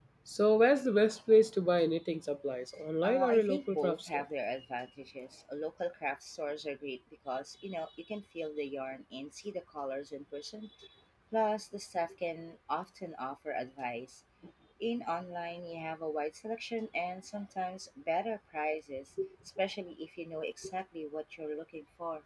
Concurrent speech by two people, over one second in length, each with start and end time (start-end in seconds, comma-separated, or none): 3.0-4.2